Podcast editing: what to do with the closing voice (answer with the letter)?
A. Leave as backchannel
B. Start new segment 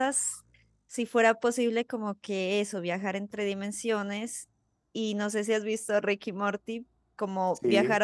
A